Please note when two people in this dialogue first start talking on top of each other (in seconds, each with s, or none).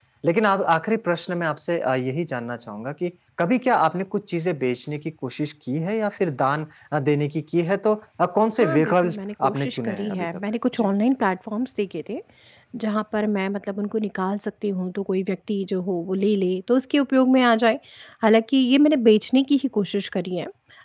8.6 s